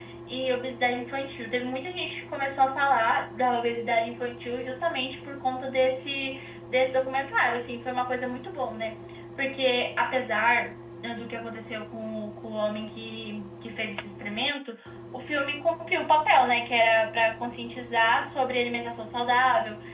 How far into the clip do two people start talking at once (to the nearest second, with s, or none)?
none